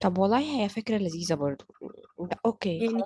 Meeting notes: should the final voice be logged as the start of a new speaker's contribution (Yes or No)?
Yes